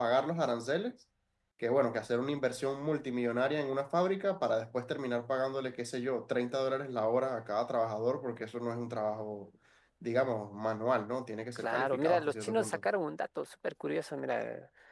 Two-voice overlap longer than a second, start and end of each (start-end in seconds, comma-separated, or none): 11.6-12.8